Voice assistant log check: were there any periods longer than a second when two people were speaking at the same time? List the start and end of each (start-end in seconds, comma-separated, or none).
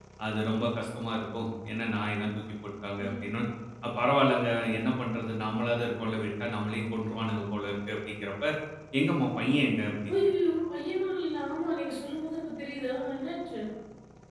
none